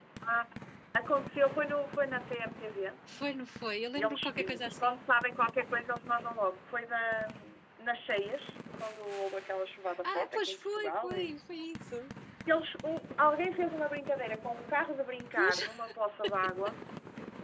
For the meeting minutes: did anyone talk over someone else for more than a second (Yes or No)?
Yes